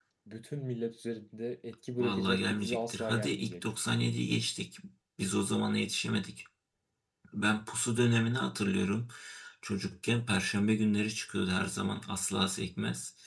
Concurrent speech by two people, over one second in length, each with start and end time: 2.0-3.6

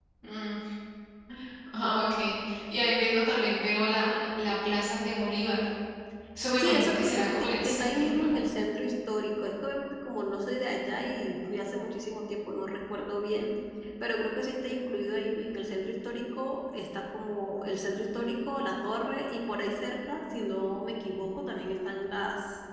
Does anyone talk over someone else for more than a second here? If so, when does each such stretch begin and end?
6.5-8.3

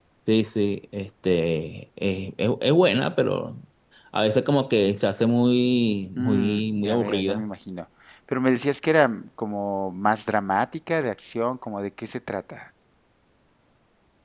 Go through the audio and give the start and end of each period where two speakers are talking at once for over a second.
6.2-7.4

